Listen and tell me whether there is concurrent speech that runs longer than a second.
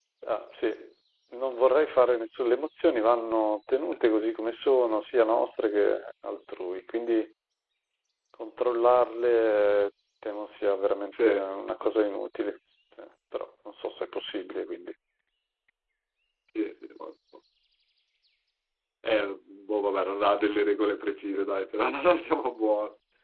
No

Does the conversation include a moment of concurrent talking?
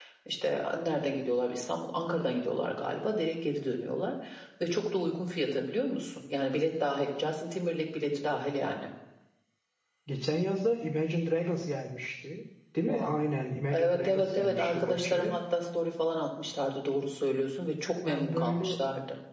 Yes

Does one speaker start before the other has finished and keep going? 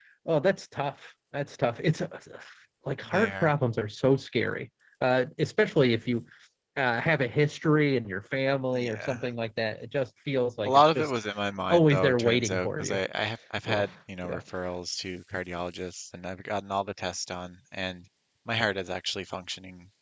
Yes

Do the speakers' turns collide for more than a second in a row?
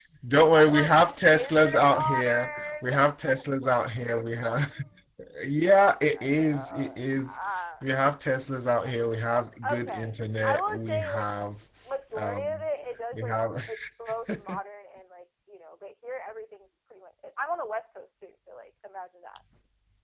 Yes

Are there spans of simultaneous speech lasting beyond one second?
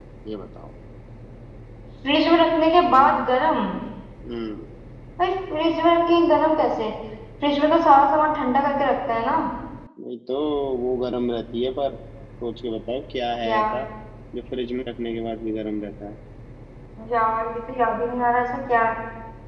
No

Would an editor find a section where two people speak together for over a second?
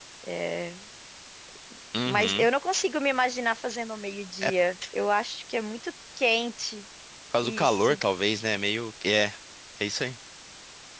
No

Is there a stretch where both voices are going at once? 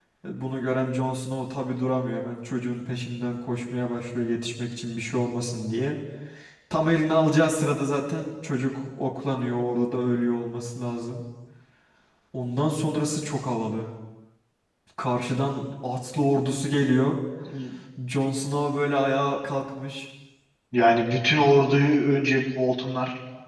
No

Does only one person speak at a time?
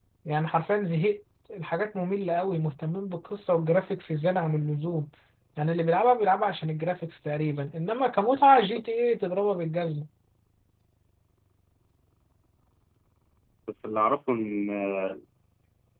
Yes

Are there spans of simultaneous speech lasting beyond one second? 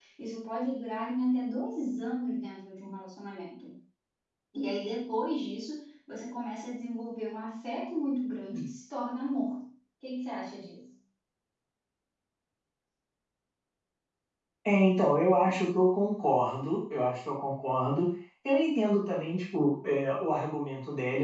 No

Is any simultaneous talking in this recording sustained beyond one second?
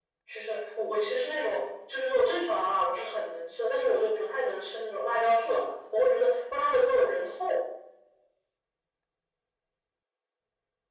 No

